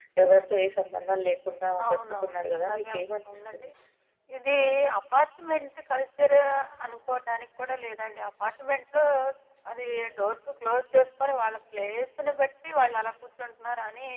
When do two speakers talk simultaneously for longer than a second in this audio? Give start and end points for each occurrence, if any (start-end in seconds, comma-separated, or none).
1.9-3.7